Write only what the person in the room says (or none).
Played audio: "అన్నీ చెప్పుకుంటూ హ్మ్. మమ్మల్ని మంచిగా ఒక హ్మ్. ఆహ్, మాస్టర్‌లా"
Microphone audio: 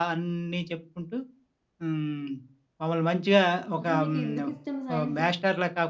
అసలు మీకెందుకిష్టం సైన్స్?